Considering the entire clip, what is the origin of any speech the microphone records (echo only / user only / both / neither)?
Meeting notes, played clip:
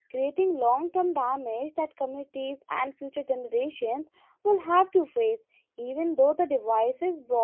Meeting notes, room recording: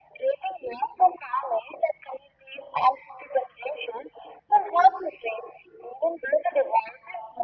echo only